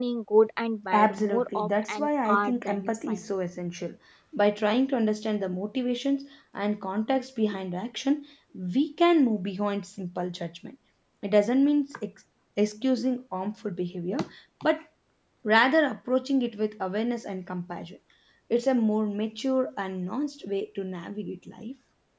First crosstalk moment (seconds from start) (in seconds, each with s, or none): 0.9 s